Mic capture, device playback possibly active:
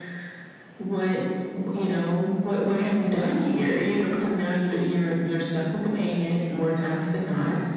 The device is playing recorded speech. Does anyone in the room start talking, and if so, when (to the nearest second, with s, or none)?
none